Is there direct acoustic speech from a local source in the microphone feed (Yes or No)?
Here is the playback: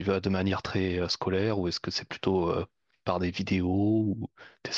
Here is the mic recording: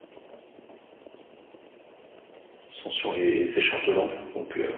Yes